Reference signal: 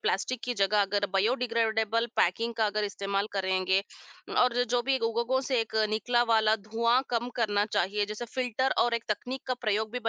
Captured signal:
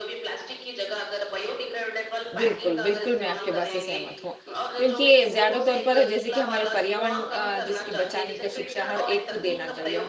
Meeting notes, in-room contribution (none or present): present